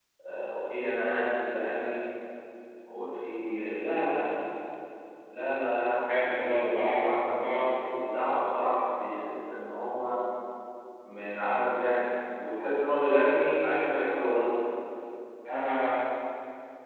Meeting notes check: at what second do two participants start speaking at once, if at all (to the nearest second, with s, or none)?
6 s